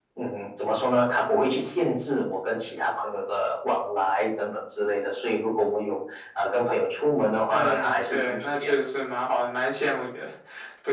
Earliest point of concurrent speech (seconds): 7.5 s

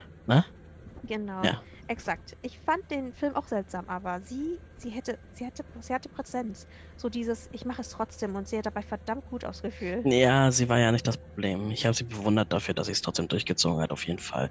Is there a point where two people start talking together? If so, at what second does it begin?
none

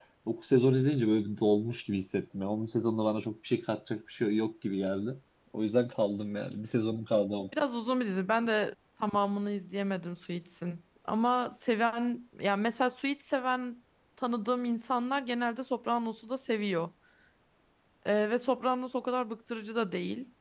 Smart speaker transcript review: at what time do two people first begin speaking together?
none

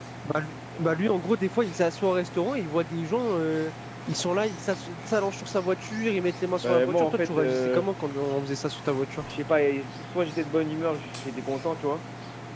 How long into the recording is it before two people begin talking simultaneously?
6.6 s

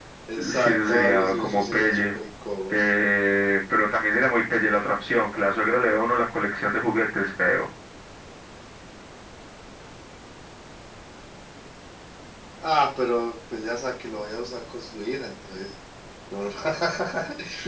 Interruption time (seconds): 0.5 s

